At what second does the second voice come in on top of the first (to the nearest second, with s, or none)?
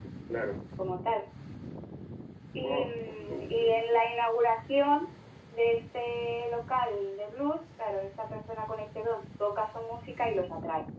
3 s